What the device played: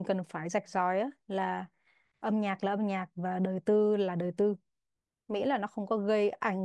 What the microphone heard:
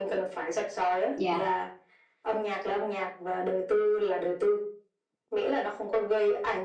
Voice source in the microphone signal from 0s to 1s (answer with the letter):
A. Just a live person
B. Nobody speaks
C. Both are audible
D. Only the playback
D